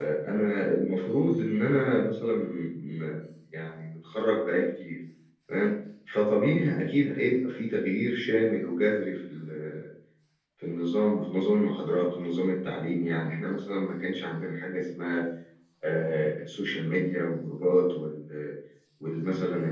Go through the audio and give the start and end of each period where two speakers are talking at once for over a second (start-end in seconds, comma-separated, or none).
none